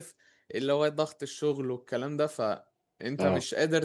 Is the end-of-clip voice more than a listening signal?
No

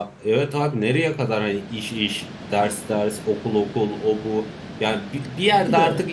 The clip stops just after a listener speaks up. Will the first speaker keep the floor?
Yes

